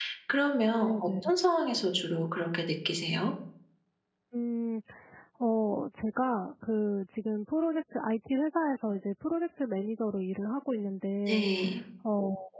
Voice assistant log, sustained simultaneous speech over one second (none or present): none